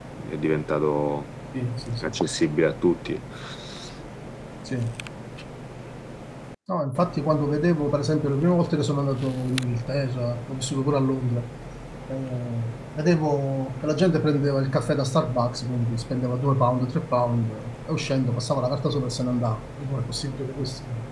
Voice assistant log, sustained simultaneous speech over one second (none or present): none